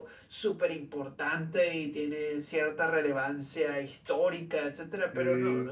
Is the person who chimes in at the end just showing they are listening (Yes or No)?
Yes